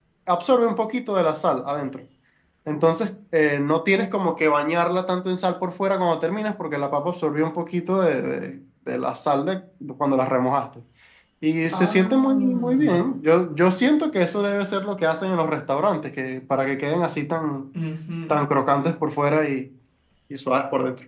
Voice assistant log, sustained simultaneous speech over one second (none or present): present